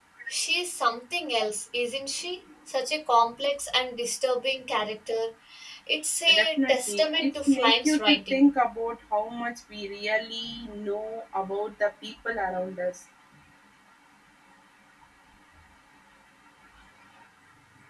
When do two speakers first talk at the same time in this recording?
6 s

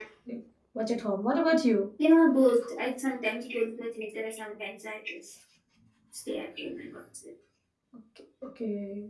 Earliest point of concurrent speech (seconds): none

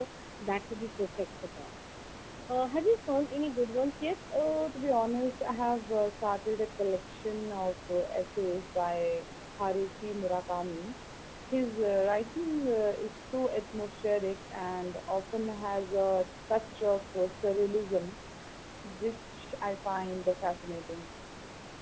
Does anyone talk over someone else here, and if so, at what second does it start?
none

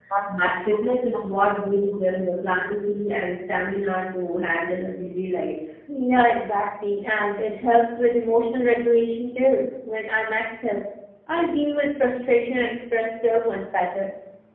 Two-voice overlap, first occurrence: none

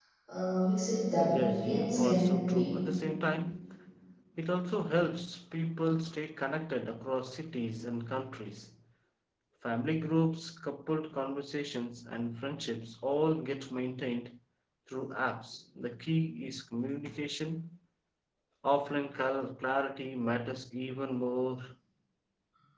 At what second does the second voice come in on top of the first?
1 s

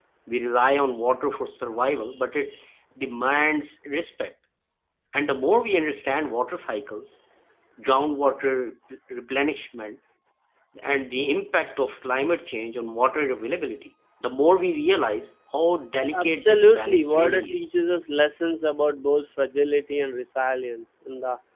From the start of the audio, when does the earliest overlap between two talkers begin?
16 s

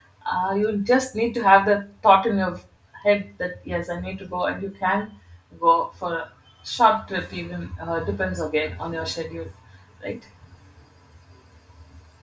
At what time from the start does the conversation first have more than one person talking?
none

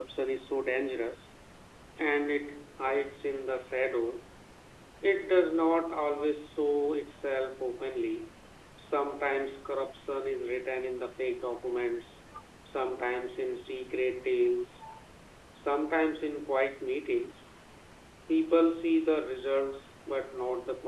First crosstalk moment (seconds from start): none

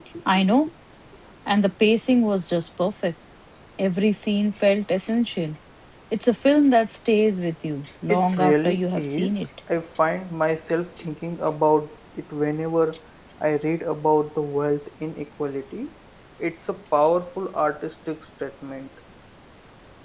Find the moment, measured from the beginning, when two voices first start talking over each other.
8 s

